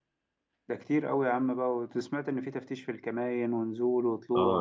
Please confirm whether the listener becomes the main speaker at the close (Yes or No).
Yes